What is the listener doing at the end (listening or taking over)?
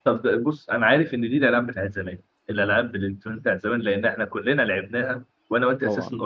listening